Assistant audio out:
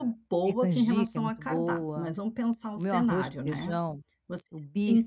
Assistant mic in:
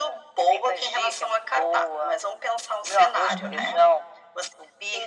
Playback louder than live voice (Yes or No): Yes